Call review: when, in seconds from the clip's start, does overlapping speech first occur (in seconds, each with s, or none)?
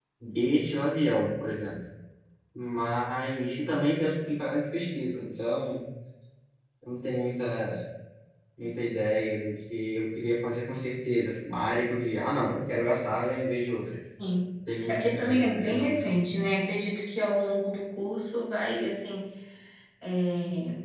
14.9 s